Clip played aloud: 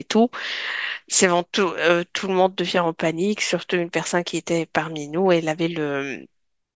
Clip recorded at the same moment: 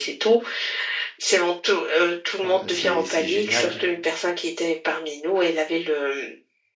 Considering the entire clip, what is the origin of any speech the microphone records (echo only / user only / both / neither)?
both